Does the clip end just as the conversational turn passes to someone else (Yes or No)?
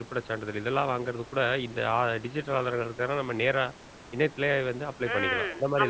Yes